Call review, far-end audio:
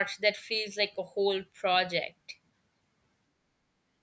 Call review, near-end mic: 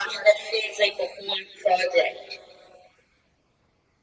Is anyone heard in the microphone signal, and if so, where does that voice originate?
echo only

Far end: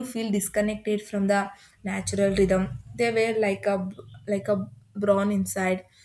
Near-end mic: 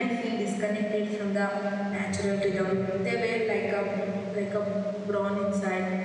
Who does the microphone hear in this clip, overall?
echo only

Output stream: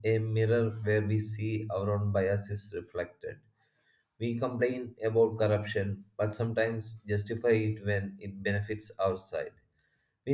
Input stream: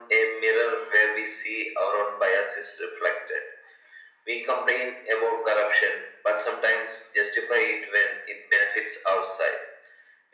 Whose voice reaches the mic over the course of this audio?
echo only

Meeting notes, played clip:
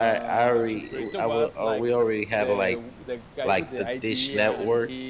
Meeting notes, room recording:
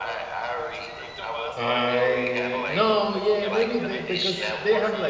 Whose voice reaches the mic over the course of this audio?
both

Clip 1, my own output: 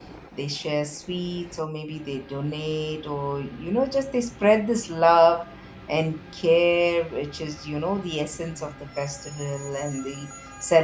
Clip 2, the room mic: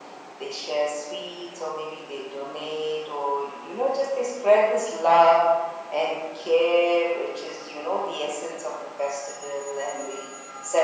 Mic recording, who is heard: echo only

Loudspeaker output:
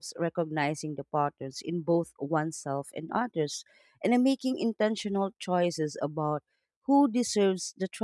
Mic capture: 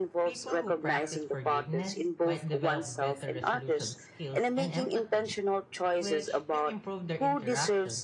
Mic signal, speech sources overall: both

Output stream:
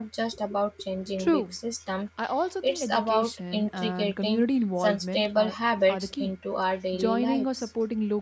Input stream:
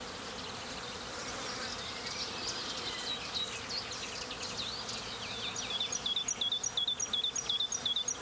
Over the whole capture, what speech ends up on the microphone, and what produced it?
neither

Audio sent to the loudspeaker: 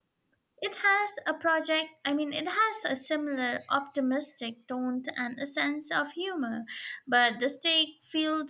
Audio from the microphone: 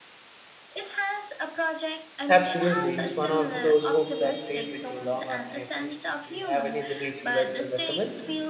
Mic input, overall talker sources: both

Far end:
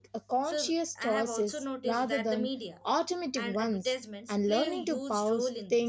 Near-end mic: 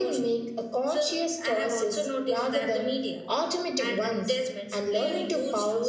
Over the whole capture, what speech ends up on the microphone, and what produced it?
echo only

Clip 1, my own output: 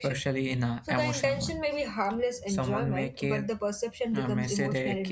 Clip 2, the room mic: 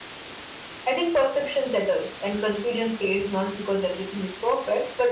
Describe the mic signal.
user only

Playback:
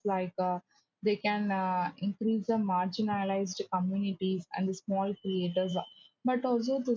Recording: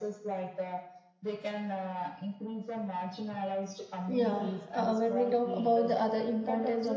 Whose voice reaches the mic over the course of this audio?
both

